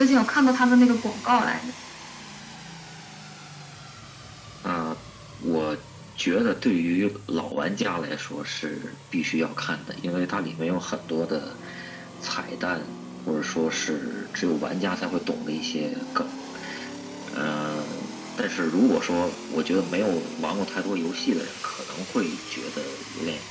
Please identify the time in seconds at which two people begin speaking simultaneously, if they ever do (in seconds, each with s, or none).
none